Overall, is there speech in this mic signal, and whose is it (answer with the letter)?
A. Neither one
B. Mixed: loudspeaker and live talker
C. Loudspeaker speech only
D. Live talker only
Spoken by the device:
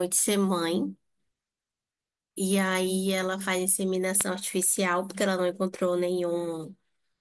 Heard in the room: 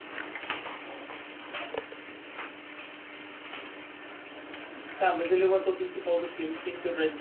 D